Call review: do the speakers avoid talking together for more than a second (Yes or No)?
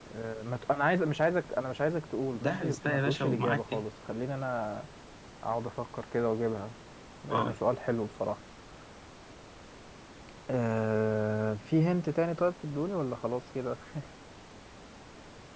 No